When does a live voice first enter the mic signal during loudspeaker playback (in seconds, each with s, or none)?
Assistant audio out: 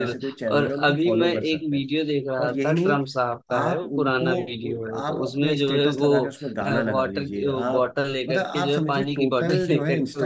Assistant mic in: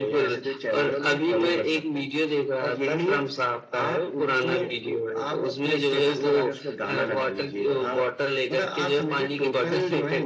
none